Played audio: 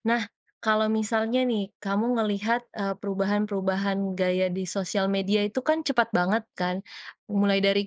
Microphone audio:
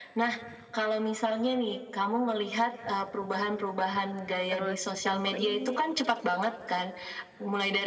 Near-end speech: present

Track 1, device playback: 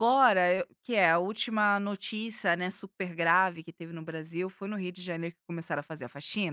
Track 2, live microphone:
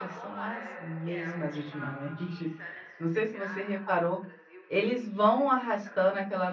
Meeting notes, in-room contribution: present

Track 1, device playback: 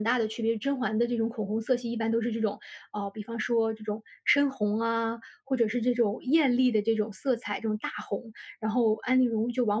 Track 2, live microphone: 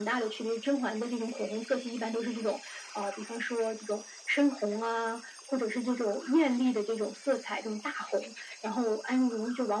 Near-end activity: none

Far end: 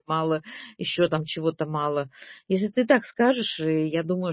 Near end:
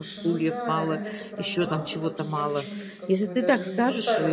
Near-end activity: present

